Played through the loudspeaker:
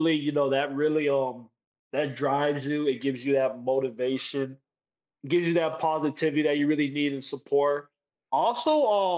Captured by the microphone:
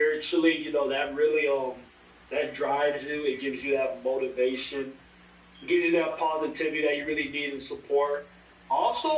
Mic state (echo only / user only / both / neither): echo only